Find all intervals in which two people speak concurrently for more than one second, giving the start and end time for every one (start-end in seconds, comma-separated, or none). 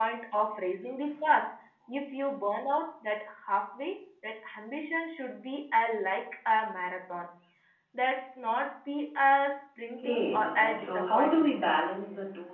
10.0-11.7